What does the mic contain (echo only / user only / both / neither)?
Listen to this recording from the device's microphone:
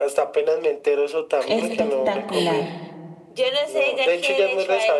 both